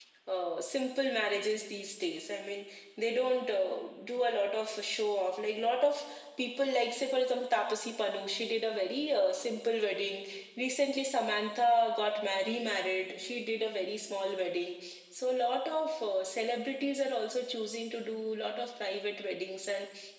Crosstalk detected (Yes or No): No